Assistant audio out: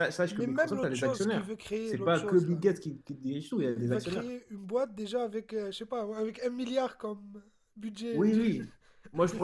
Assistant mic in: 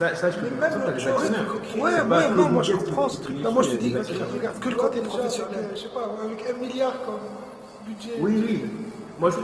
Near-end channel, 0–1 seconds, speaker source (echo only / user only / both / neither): echo only